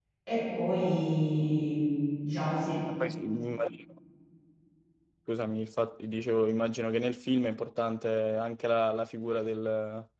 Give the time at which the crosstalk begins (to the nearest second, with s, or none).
none